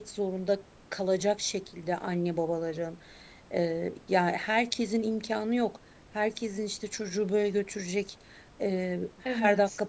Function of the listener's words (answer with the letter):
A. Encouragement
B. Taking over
A